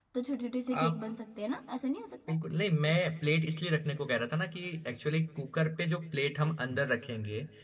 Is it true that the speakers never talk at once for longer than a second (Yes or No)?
Yes